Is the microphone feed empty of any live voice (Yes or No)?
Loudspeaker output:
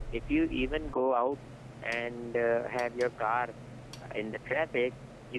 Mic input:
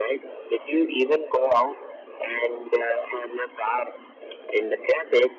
Yes